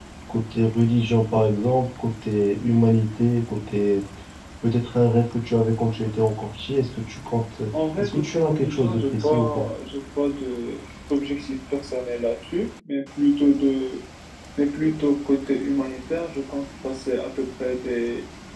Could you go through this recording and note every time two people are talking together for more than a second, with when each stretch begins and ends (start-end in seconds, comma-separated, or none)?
8.0-9.7